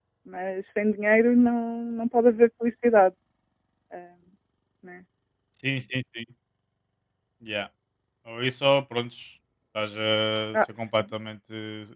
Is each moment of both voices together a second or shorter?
Yes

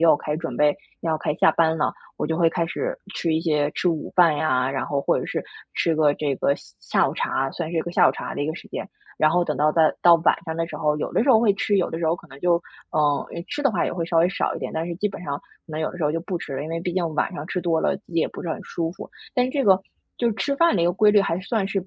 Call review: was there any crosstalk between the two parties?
No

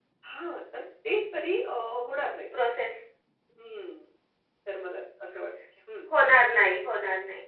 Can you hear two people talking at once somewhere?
No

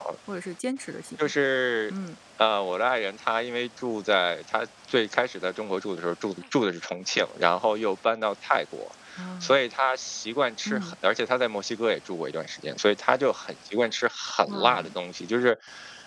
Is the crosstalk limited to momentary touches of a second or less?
Yes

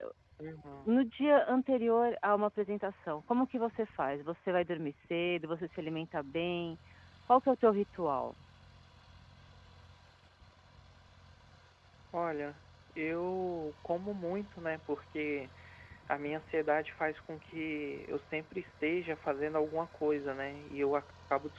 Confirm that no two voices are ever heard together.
Yes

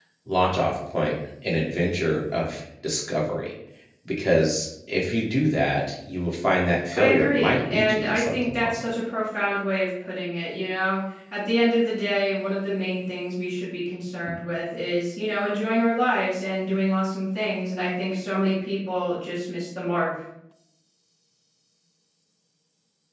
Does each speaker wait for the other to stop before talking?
No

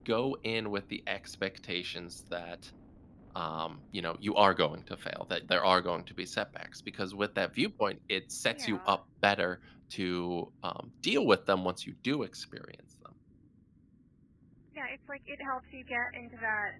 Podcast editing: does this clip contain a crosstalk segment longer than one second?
No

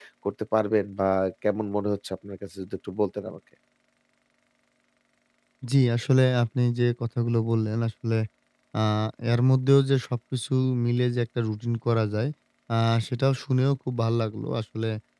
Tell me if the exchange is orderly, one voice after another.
Yes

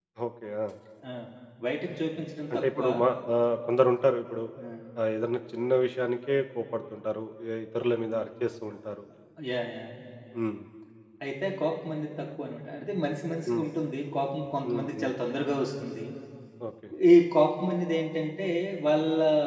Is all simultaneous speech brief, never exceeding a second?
Yes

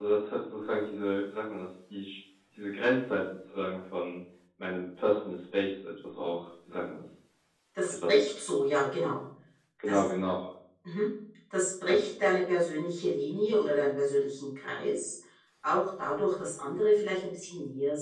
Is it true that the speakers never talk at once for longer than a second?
Yes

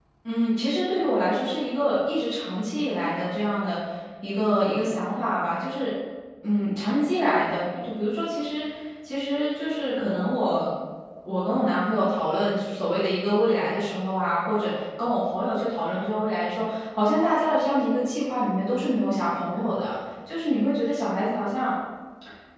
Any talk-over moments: No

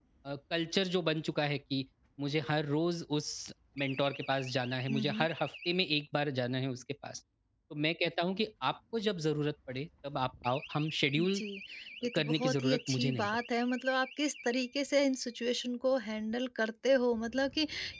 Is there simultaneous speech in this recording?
Yes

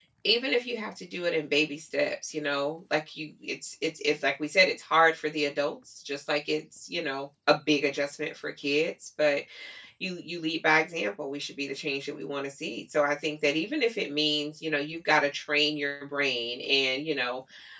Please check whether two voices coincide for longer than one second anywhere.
No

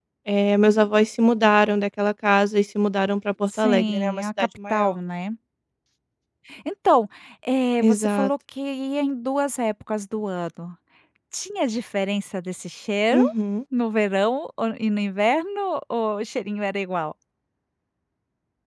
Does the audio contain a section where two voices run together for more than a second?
Yes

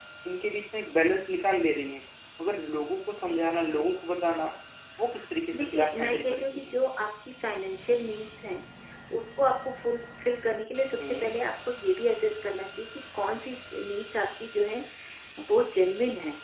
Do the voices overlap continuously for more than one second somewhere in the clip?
Yes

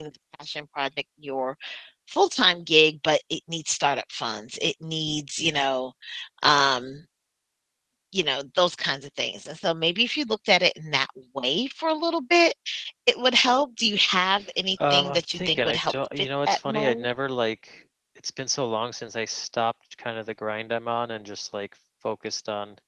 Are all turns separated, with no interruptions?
No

